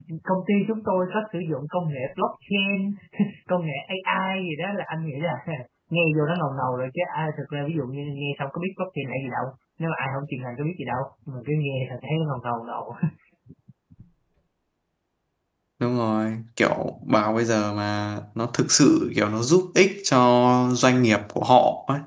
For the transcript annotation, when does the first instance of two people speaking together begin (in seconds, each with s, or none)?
none